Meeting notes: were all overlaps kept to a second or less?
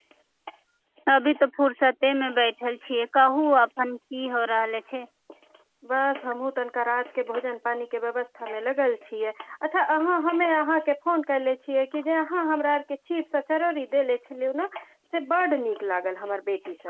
Yes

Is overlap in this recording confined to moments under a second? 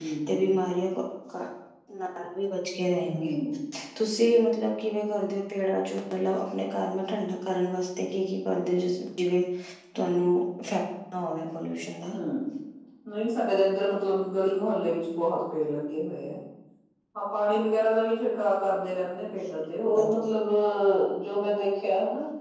Yes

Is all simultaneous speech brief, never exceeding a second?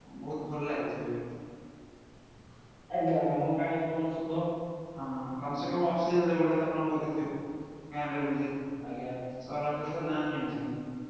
Yes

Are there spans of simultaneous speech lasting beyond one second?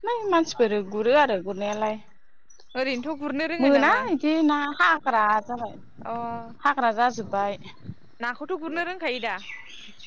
No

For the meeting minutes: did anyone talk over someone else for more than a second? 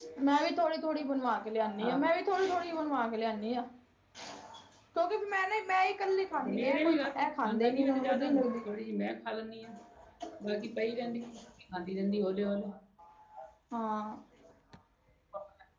Yes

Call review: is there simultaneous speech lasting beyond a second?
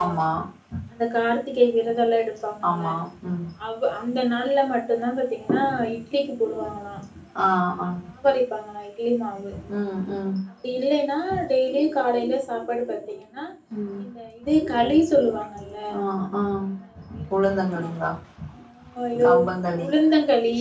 No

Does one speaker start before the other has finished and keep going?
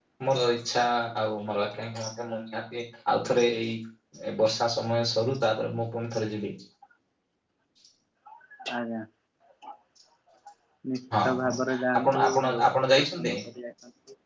Yes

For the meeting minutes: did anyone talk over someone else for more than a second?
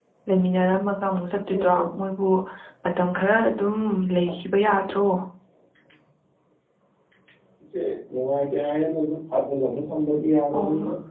No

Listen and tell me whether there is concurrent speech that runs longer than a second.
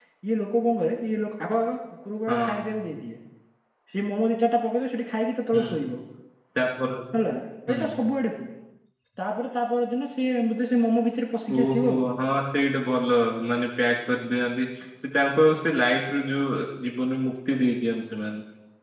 No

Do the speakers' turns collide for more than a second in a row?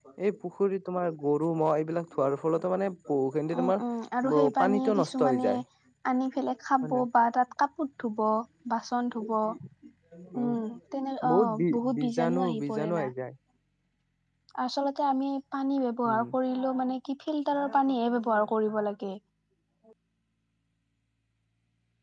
Yes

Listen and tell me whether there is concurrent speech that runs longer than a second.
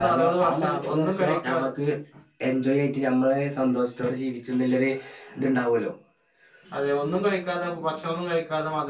Yes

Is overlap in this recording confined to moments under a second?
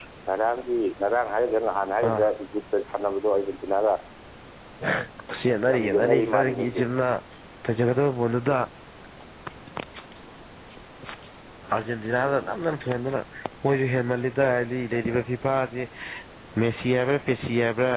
No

